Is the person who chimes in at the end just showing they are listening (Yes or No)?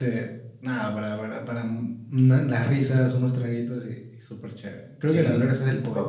No